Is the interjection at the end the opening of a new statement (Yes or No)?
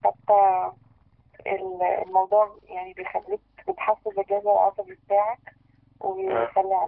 No